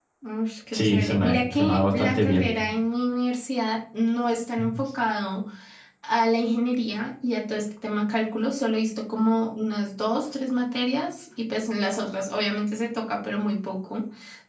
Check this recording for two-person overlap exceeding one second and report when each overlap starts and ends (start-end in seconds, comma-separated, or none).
0.7-2.5